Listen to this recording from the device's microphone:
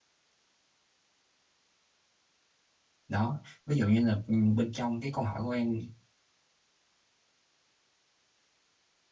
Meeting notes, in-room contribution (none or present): present